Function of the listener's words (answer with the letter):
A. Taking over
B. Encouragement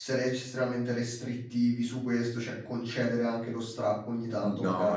A